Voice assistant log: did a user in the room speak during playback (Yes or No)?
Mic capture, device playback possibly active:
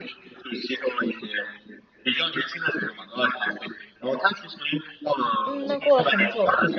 Yes